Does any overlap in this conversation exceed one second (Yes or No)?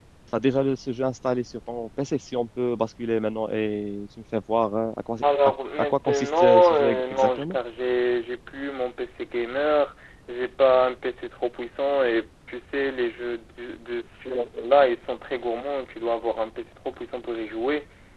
Yes